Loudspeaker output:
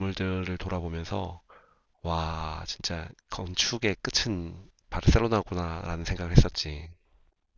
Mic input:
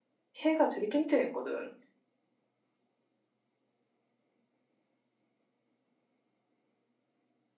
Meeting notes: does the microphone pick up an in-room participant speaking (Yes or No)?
Yes